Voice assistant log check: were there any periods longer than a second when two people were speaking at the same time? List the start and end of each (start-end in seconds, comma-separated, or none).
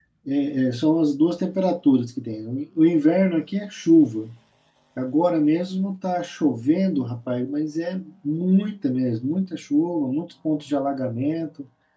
none